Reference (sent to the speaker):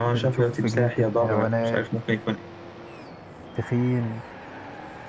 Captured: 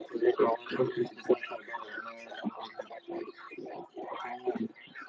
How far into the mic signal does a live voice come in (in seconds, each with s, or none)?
none